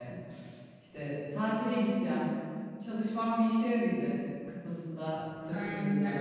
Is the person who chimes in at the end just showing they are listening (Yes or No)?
No